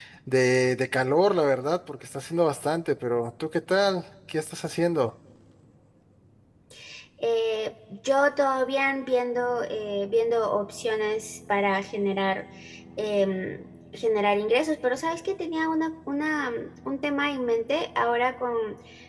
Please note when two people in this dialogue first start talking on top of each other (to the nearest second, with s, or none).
none